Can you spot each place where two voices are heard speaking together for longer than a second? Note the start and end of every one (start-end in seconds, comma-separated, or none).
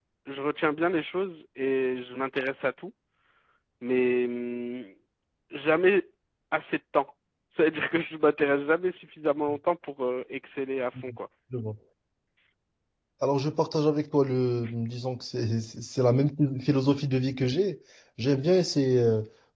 none